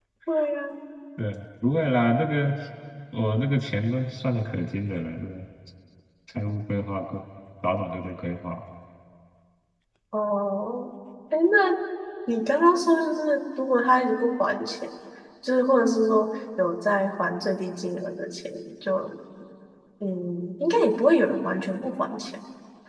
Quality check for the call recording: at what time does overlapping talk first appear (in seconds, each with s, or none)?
none